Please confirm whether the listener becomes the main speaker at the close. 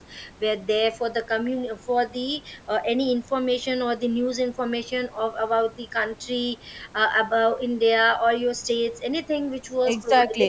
Yes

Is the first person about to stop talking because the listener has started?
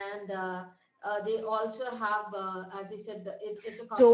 Yes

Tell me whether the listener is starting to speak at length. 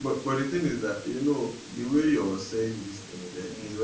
No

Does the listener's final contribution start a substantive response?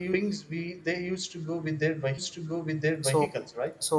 Yes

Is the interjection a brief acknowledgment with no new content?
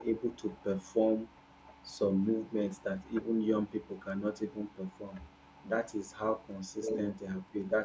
Yes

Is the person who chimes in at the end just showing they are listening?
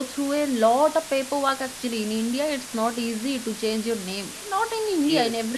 Yes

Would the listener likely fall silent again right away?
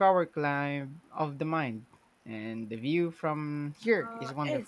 No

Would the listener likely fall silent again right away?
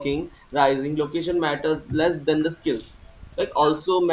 Yes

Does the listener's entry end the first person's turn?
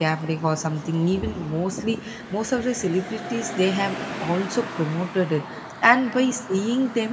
No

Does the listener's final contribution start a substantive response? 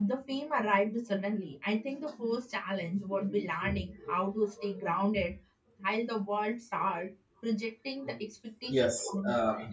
Yes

